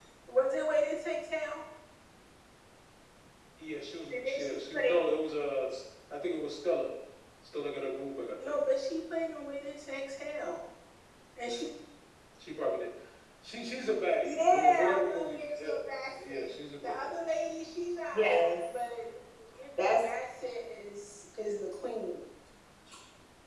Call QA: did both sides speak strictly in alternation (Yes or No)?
No